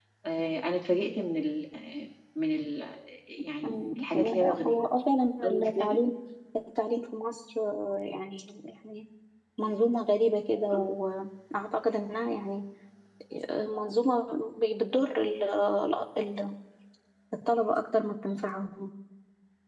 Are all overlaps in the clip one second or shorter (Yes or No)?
No